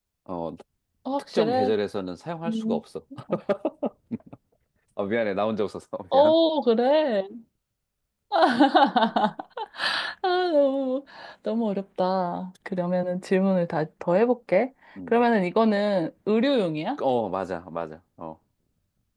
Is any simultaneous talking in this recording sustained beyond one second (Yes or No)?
No